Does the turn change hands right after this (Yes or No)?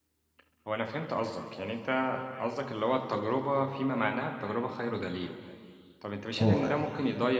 No